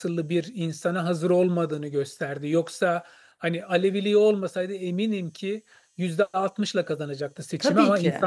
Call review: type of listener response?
listening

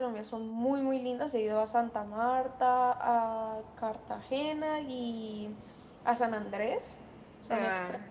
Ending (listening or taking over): listening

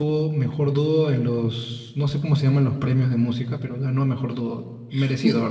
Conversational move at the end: taking over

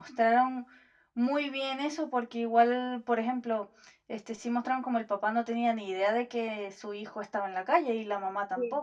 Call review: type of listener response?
taking over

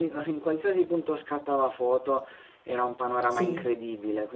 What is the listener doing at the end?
listening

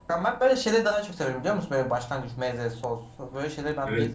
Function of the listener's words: taking over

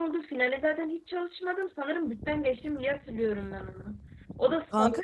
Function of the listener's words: listening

